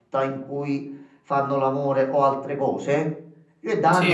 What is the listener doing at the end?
listening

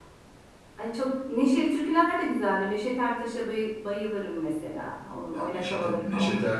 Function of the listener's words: taking over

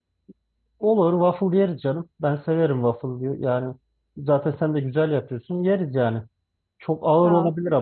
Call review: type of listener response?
listening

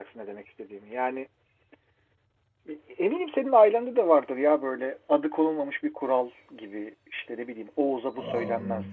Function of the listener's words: listening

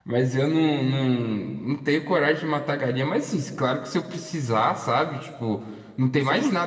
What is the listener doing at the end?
listening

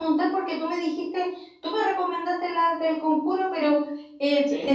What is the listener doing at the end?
listening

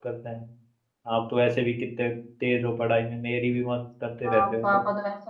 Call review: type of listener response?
taking over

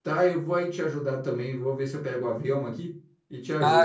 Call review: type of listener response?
taking over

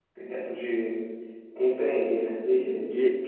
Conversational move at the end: taking over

